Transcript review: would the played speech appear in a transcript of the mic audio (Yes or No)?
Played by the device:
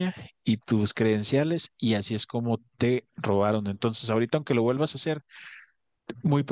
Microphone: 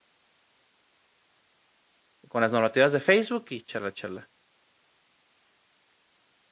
No